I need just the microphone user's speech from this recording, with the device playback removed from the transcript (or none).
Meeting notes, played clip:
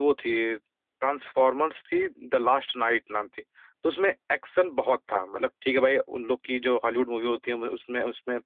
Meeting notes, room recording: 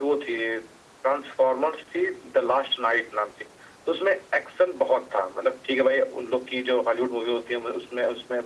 none